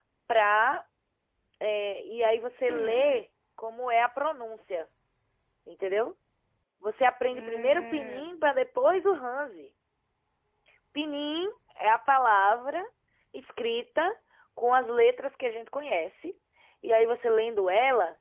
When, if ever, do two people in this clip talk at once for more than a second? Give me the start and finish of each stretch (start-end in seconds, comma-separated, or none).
7.3-8.6